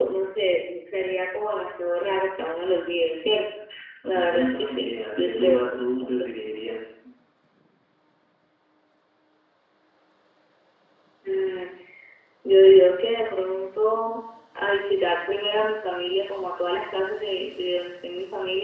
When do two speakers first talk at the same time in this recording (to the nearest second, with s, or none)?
4 s